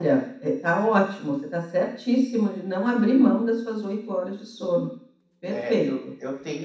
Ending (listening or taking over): taking over